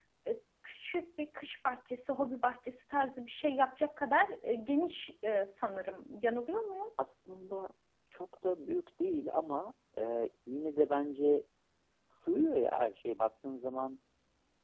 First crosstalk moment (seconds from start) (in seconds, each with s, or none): none